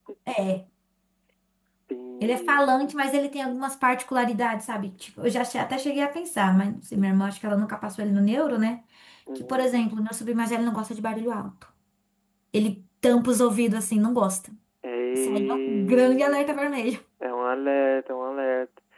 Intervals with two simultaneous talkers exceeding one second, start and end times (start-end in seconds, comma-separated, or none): 15.1-16.4